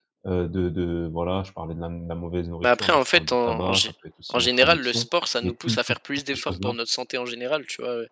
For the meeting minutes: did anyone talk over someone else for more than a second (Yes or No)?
Yes